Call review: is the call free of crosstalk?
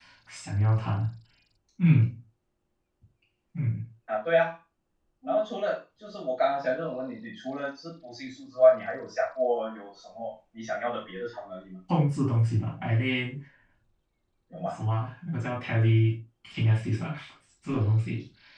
Yes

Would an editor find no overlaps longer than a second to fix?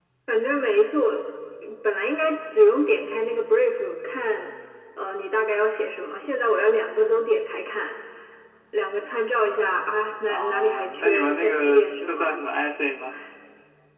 No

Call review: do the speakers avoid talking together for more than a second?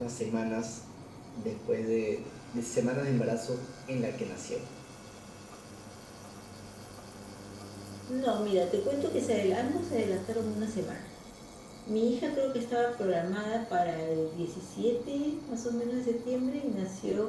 Yes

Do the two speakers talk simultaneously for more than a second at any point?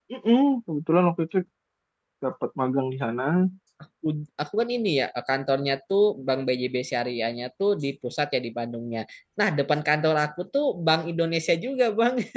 No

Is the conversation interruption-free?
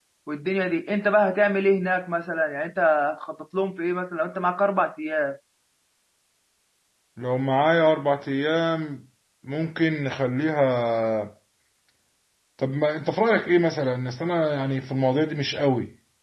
Yes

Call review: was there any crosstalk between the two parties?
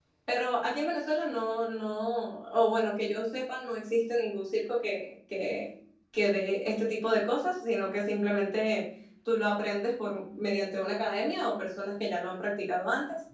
No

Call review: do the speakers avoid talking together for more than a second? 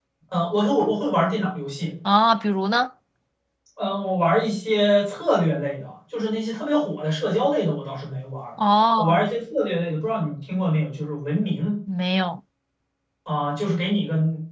Yes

